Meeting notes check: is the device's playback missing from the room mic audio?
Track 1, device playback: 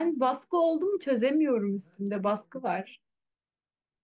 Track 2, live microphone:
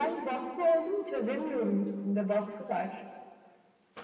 No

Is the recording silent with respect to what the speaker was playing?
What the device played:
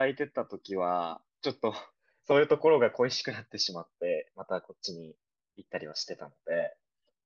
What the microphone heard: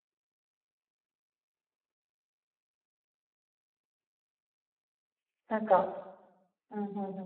Yes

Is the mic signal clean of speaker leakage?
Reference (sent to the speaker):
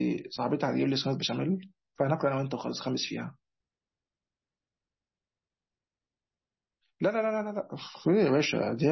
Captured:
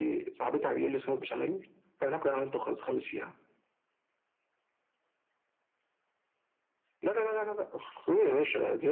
No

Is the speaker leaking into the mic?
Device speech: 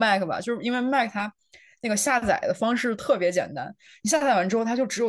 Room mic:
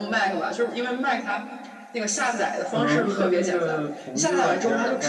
Yes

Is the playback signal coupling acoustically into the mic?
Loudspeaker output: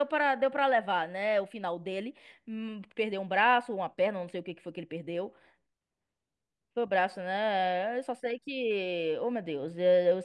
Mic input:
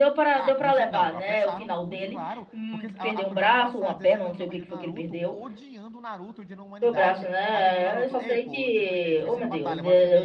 Yes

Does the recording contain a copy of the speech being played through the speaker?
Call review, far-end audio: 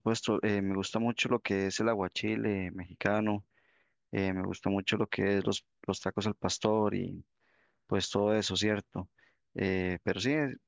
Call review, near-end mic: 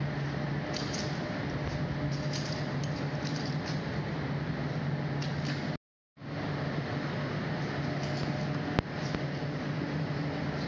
No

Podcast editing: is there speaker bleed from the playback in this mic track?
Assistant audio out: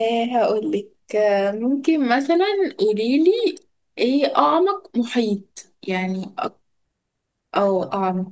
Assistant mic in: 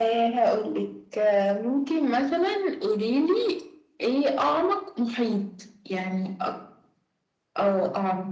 Yes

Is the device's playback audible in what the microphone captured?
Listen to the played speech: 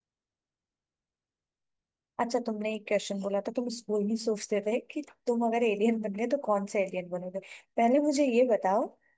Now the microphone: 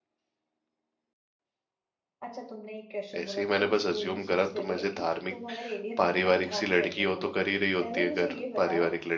Yes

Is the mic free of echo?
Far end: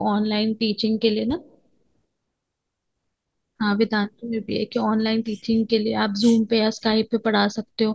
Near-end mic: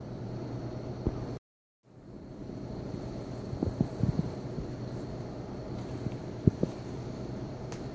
Yes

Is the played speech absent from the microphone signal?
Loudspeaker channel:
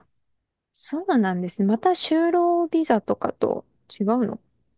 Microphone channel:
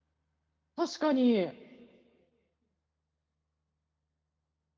Yes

